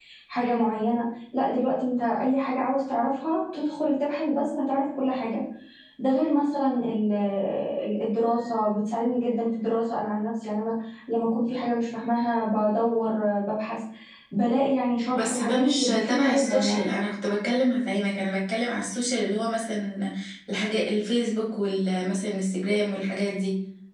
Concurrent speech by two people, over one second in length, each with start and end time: 15.2-16.9

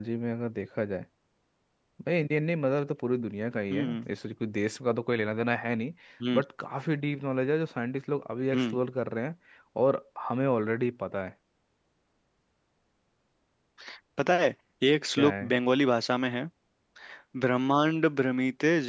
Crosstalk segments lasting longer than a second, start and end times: none

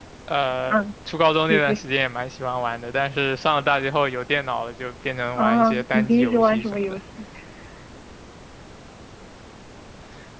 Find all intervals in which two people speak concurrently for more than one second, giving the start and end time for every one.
5.4-7.0

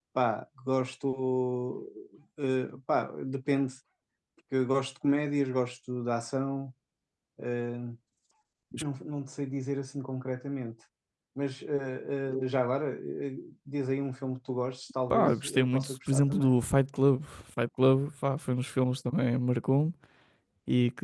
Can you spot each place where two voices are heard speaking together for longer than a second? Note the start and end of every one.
15.1-16.5

